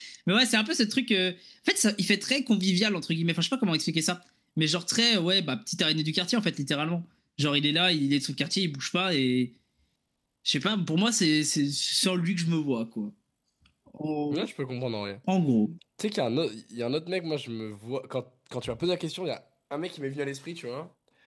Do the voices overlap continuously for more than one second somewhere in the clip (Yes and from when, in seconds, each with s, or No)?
No